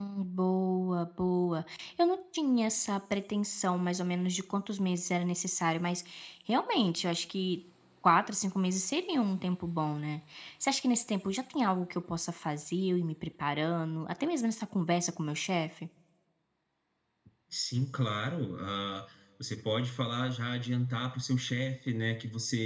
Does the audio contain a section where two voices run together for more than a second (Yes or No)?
No